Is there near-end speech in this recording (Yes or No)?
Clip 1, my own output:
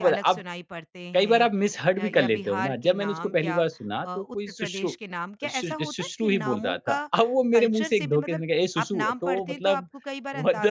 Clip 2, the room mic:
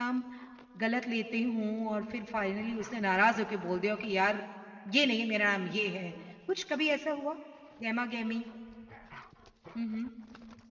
Yes